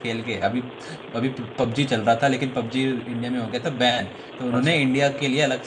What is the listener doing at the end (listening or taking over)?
listening